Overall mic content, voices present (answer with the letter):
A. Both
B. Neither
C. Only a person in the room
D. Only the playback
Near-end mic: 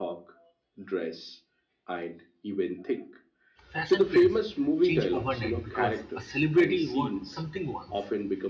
A